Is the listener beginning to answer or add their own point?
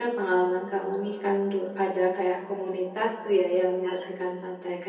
No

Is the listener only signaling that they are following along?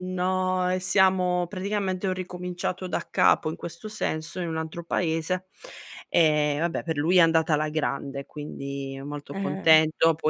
Yes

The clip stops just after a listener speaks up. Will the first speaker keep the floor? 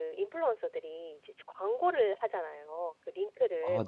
Yes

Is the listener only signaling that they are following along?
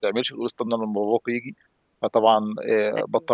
Yes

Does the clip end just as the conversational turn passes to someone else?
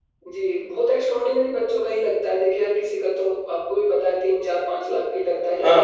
Yes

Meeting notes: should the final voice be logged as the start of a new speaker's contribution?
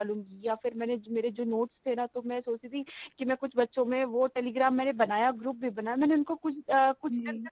No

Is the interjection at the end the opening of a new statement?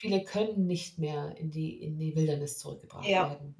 No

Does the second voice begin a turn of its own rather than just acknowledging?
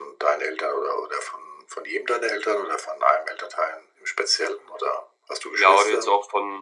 Yes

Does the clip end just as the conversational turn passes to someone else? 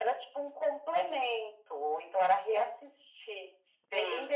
No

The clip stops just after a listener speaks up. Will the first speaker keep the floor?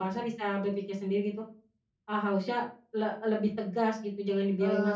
No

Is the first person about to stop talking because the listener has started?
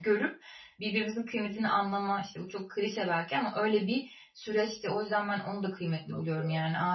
No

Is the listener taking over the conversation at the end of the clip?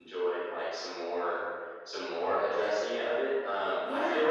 No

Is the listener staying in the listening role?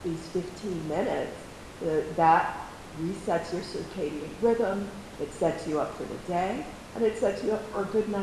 Yes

